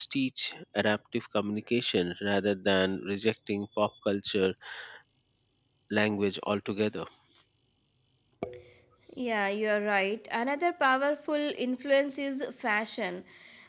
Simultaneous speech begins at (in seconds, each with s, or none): none